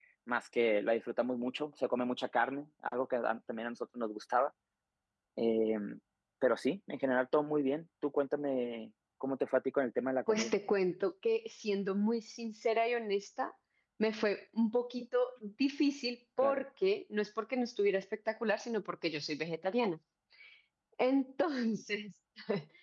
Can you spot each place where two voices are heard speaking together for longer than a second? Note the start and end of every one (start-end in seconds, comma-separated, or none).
none